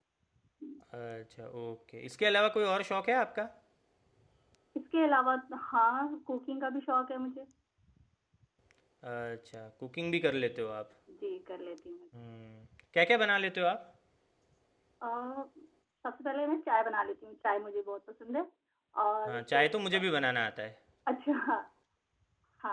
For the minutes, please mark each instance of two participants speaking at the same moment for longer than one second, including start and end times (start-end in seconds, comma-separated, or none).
none